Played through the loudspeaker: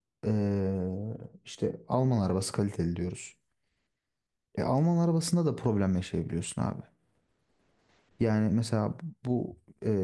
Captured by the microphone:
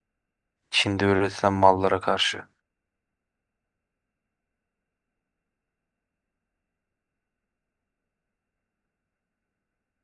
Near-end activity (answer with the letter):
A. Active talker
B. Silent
A